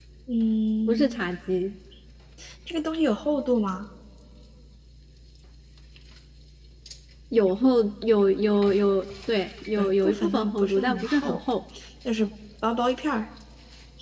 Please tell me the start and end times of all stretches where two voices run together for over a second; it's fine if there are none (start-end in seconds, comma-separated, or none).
9.8-11.4